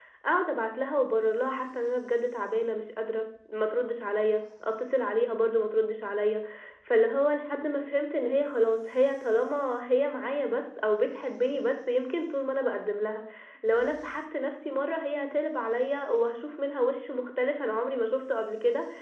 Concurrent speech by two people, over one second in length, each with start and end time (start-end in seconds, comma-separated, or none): none